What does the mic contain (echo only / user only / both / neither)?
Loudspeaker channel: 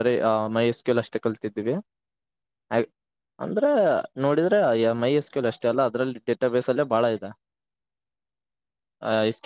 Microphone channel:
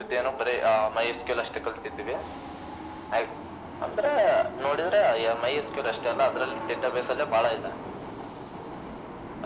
echo only